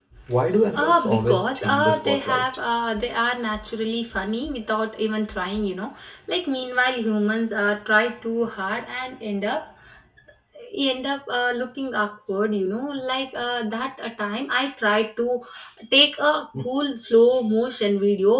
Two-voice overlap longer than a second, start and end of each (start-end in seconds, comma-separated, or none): 0.7-2.4